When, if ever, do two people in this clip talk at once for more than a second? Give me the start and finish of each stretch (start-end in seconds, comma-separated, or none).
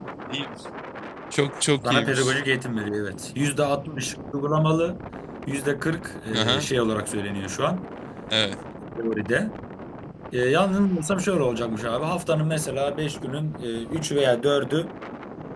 none